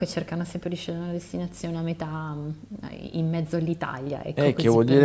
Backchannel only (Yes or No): No